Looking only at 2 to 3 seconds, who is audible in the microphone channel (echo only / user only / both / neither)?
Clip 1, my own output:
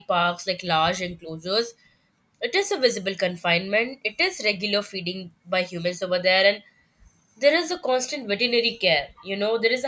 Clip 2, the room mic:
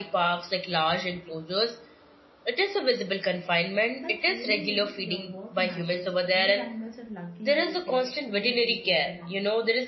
echo only